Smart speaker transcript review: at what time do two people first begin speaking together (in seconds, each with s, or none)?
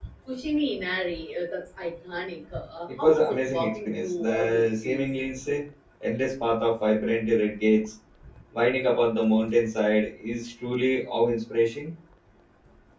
3.0 s